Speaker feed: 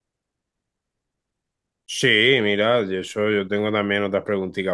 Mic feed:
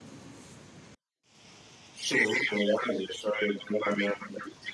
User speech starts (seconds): none

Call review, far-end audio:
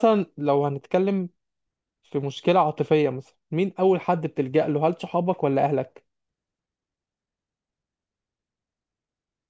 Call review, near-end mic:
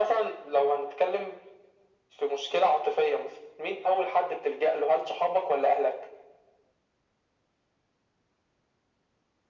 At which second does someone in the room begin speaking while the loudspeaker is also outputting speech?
none

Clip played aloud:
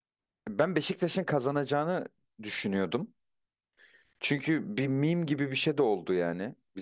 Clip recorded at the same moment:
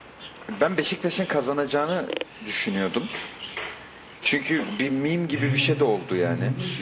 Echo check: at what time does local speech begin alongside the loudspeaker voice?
5.3 s

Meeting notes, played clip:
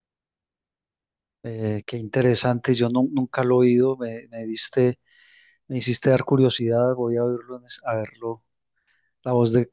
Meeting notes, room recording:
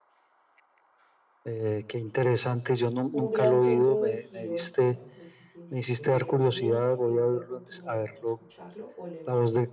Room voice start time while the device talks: 3.1 s

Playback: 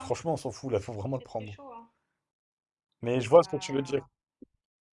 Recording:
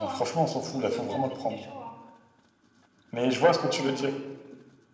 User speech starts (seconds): 0.8 s

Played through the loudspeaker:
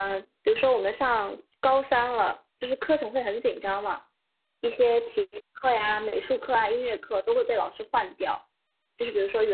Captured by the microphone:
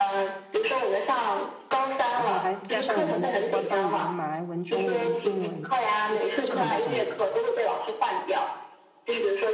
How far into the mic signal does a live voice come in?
2.1 s

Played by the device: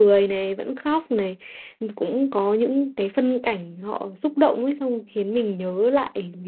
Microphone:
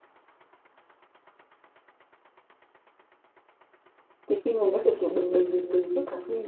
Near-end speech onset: 4.3 s

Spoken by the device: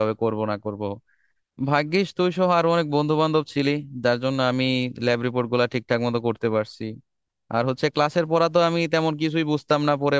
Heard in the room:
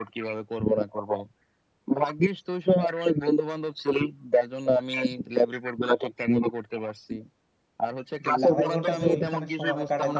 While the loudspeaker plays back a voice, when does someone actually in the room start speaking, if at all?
8.2 s

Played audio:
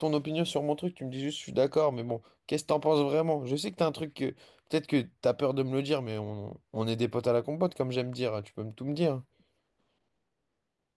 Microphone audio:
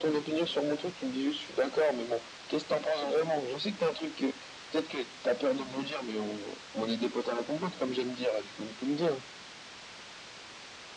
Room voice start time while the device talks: none

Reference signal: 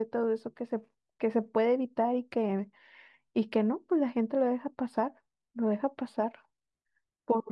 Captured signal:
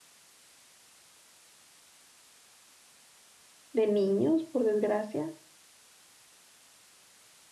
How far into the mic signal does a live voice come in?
3.7 s

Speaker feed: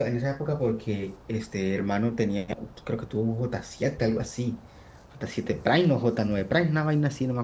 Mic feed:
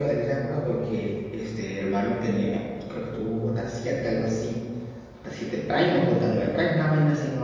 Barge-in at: none

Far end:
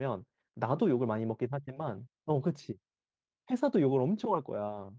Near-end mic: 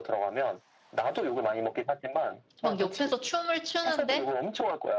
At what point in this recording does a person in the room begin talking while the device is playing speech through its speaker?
2.6 s

